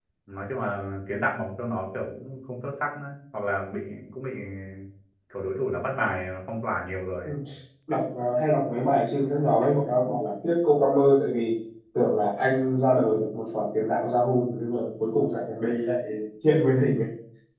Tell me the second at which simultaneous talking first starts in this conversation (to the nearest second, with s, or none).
none